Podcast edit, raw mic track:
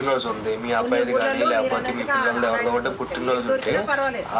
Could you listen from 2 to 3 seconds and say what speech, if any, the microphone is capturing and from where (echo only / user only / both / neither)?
both